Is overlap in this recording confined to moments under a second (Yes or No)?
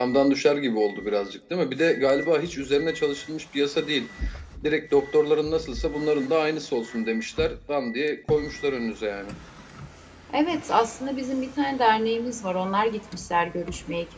Yes